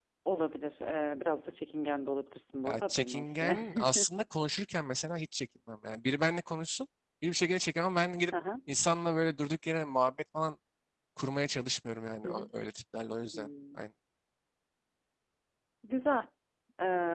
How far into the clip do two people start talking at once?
3 s

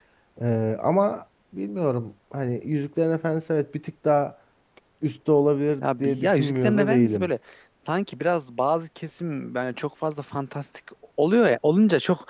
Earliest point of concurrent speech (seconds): 6 s

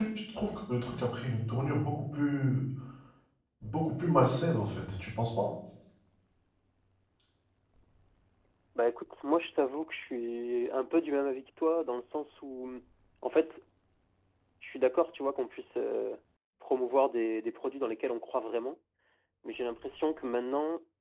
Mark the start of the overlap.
none

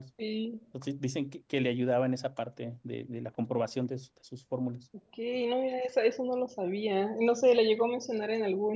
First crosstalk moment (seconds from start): none

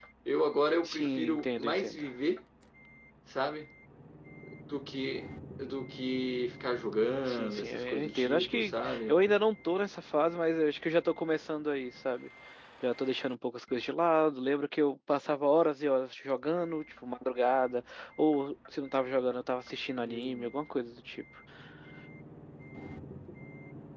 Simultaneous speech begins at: 1 s

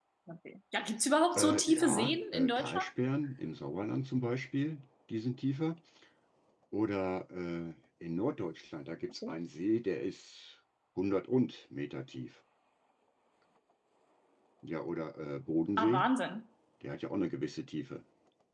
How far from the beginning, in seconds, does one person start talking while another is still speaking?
1 s

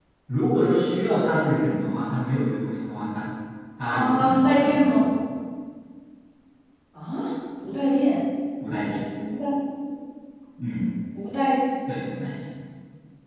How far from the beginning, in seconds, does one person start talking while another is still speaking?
4 s

